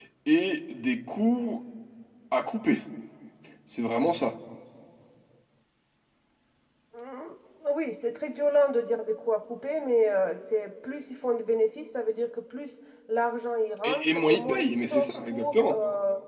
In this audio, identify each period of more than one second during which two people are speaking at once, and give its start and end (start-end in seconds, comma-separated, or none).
13.8-15.8